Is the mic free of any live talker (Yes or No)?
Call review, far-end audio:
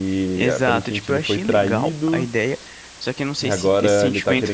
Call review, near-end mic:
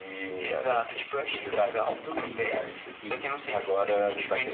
No